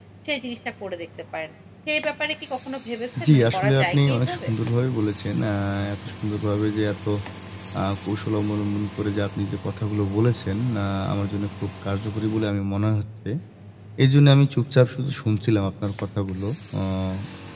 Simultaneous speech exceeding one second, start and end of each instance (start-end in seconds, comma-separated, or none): 3.2-4.5